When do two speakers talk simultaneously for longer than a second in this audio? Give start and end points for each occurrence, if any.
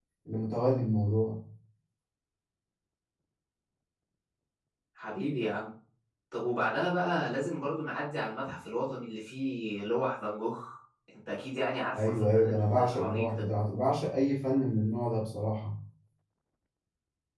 12.0-13.4

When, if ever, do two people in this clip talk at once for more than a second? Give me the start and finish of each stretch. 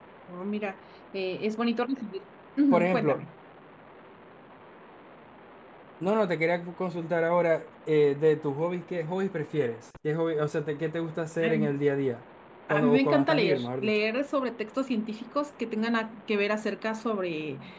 12.7-14.0

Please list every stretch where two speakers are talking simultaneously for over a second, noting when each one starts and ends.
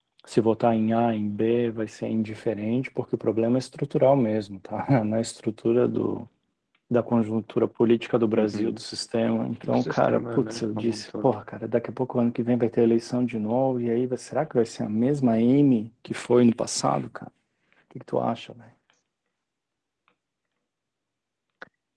9.6-11.3

